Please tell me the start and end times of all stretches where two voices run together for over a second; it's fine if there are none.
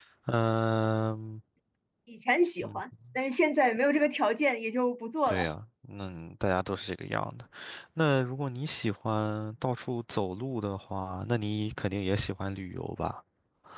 none

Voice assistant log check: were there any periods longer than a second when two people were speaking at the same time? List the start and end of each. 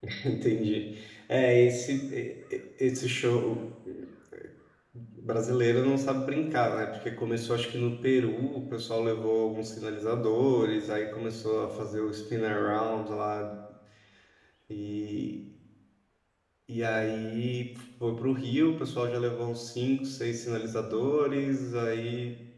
none

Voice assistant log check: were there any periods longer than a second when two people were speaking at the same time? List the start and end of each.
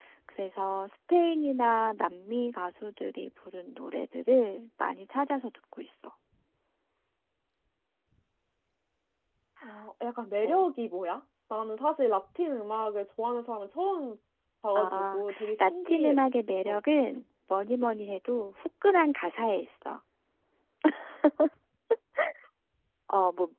14.8-16.2

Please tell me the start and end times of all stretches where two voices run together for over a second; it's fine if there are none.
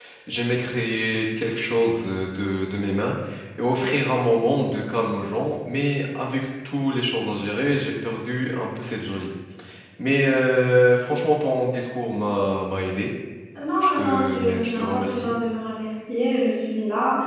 13.8-15.3

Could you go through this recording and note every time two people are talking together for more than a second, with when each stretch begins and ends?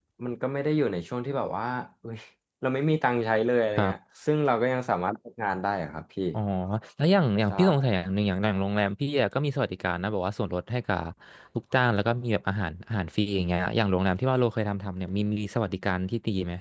none

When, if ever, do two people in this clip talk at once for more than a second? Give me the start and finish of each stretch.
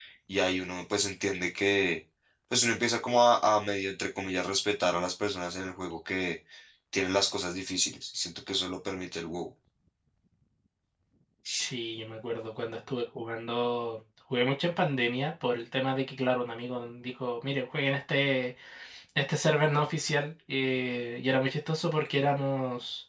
none

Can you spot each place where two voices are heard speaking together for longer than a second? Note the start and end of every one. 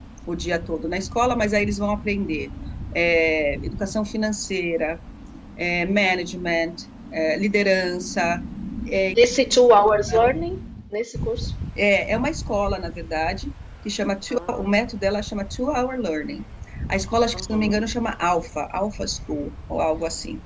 none

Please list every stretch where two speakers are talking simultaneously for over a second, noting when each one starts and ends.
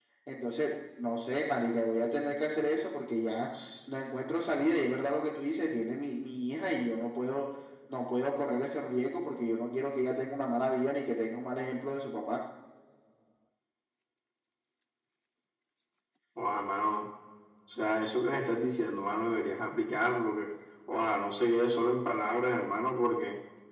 none

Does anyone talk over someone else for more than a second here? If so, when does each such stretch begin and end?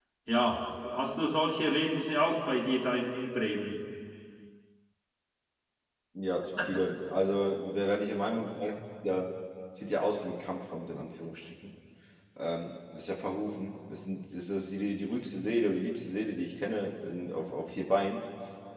none

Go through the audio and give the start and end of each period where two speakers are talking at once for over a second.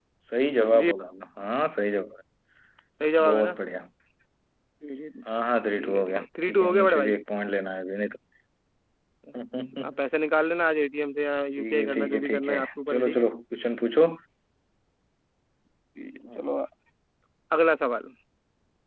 5.8-7.1, 11.6-13.3

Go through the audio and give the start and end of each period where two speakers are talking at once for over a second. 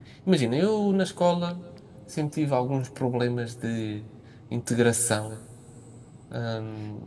none

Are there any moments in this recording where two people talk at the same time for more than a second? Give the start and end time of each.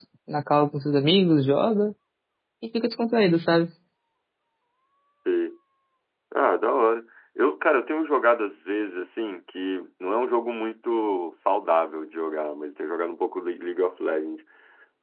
none

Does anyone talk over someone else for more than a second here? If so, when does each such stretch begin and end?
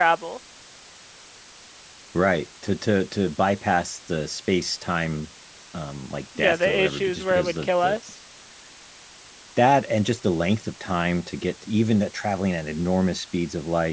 6.4-8.0

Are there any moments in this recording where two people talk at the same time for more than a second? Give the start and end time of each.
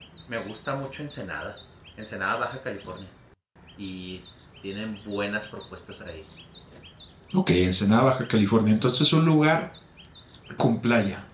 none

